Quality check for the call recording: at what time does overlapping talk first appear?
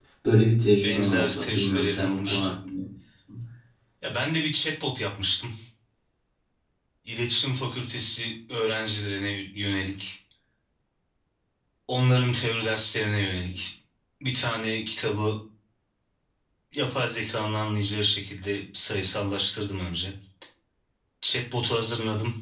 1 s

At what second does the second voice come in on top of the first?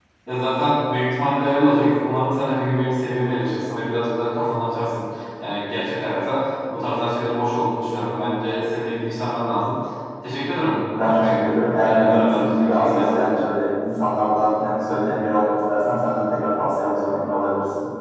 11 s

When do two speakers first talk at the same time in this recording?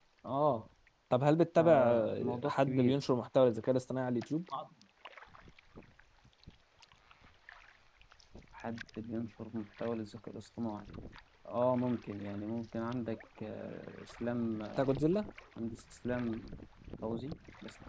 2 s

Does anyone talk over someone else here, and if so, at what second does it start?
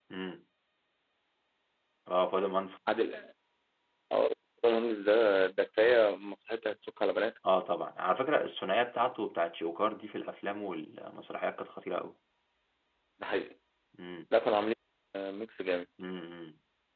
none

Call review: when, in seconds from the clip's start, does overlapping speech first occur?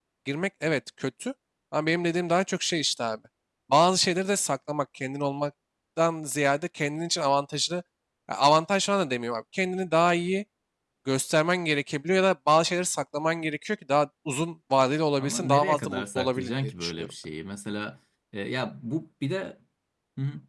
15 s

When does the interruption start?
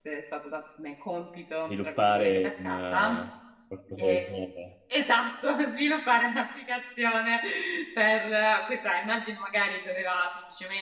2 s

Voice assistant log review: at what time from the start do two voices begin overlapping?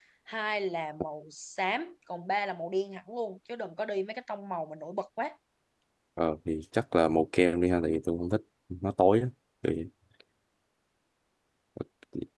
none

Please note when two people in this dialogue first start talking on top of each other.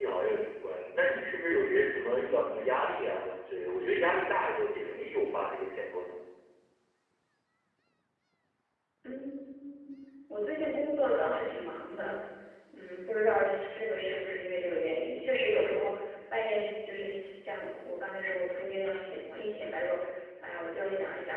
none

